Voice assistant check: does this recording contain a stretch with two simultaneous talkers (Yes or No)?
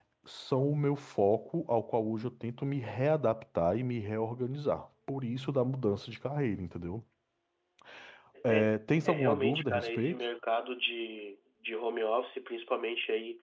Yes